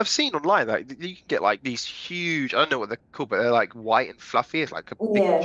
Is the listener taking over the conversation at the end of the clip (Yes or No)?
No